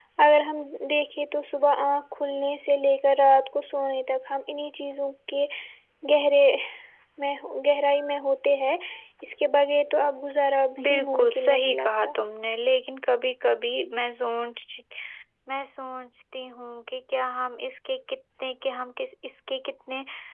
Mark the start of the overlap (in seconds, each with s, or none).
10.8 s